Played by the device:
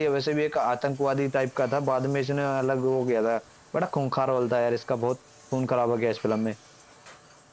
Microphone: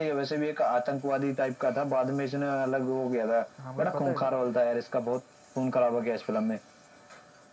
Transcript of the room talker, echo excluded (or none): हाँ मुझे पता है